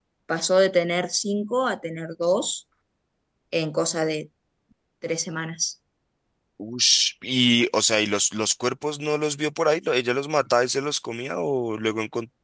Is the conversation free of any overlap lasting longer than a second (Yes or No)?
Yes